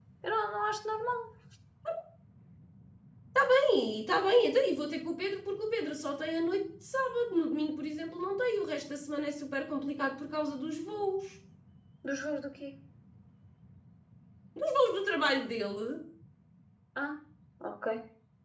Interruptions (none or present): none